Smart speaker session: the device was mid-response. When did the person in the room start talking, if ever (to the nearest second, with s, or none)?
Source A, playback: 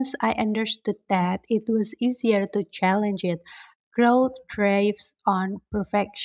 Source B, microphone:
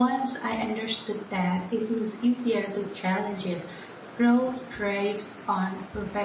none